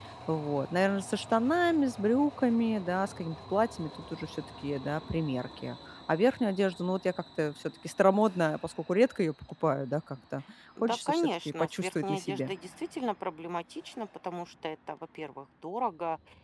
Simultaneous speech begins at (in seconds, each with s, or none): 10.8 s